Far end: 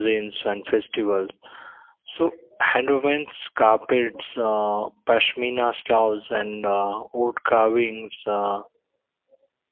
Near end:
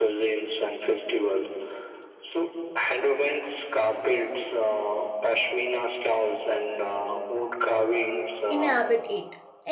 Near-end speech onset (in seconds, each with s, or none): 8.5 s